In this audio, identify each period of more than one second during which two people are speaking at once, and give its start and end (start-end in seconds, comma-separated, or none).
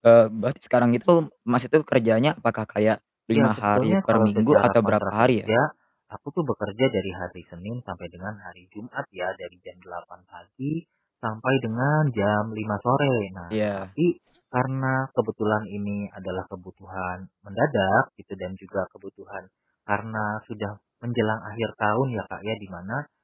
3.3-5.3